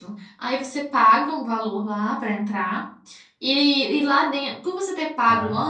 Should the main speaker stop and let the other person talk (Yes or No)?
No